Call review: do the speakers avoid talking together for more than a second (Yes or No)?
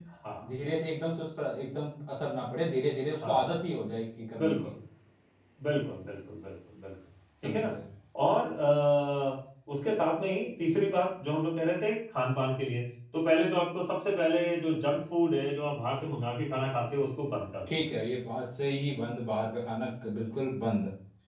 Yes